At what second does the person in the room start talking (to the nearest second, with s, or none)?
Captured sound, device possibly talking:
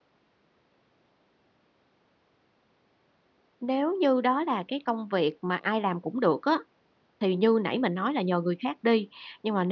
4 s